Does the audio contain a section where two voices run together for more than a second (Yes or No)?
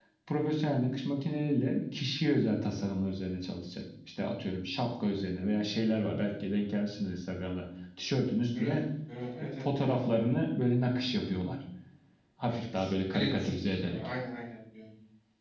Yes